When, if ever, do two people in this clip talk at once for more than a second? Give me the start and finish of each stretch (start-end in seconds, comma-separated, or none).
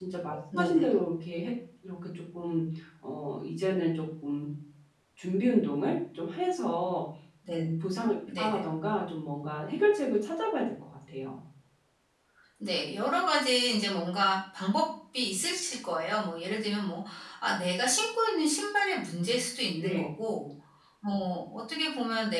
none